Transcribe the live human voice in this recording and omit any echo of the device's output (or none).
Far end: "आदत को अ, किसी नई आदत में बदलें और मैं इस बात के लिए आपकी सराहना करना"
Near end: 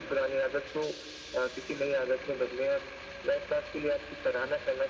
none